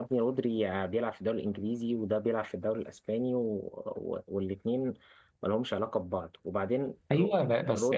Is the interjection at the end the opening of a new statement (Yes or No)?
Yes